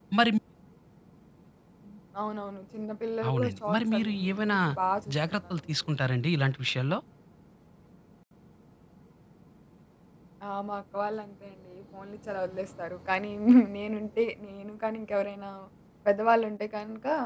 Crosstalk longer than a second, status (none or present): present